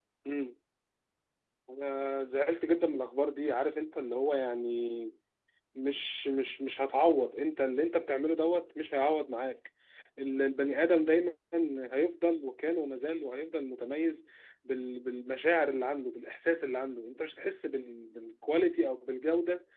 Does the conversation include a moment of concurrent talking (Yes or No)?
No